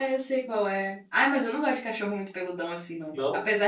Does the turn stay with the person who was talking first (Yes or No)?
Yes